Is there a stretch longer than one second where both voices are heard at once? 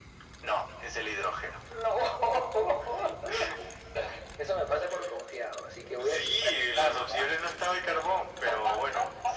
Yes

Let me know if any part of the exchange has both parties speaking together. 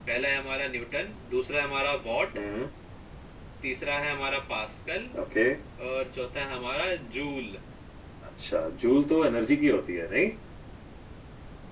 No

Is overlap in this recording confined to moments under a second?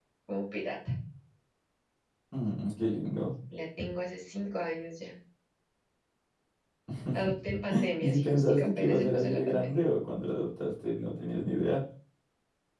No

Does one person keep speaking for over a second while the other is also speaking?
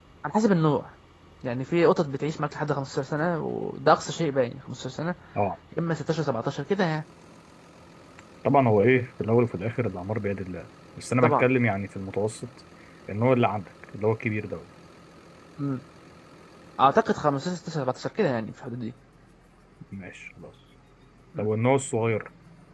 No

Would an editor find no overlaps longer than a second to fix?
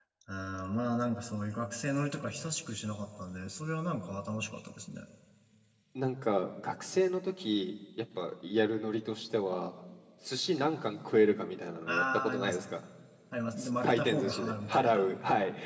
No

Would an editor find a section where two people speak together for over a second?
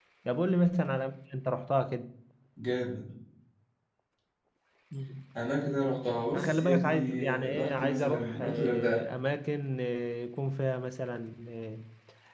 Yes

